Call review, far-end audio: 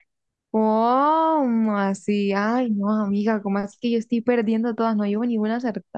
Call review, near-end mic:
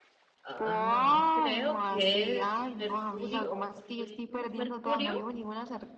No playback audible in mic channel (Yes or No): No